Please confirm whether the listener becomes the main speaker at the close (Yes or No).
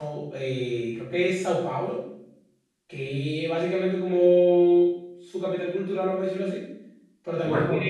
No